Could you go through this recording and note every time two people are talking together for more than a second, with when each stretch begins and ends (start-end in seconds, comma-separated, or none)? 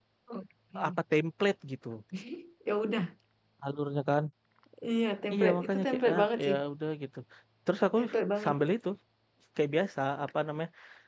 5.3-6.5